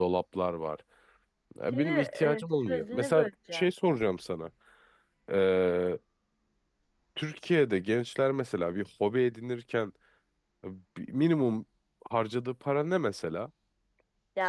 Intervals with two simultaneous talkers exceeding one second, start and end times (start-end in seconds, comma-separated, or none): 1.7-3.7